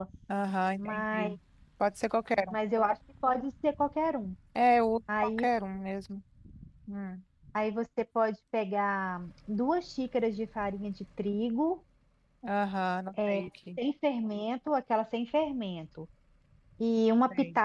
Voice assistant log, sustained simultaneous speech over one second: none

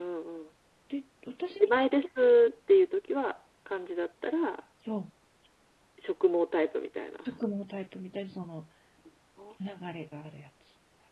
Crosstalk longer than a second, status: none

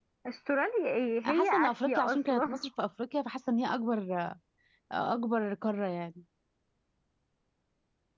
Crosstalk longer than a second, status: present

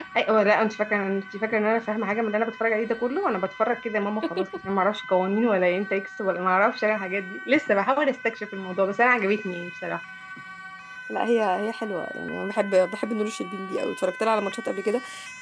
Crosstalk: none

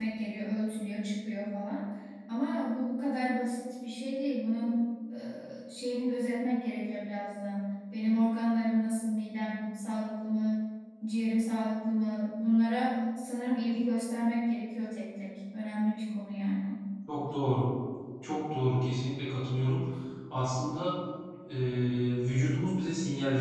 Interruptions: none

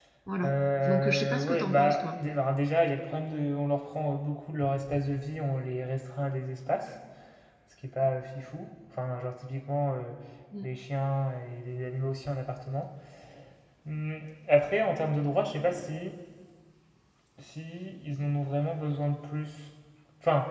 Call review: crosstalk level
present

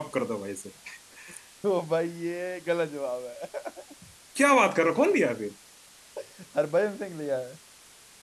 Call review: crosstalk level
none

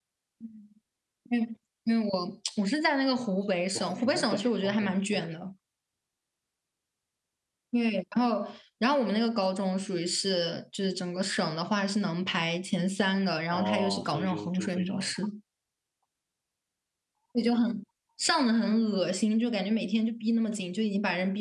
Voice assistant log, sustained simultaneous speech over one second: present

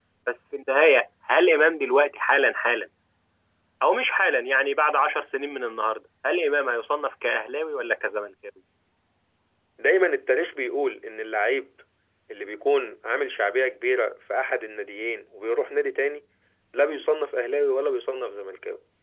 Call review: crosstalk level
none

